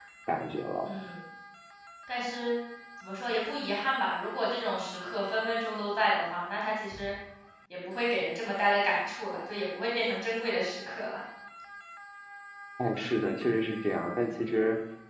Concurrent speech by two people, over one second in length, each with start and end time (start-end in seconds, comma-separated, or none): none